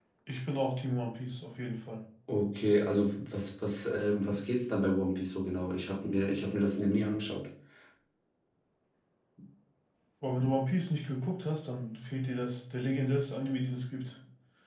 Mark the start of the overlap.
none

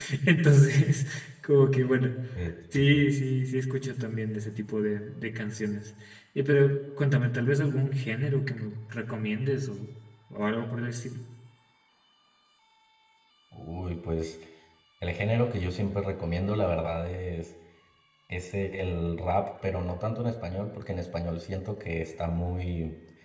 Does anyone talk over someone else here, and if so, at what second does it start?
none

